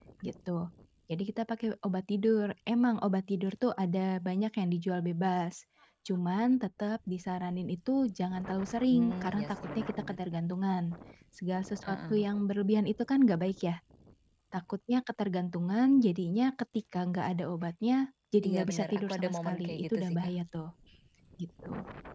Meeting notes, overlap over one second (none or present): present